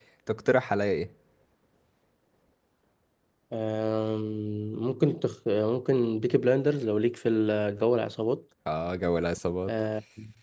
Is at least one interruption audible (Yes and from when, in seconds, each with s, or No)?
No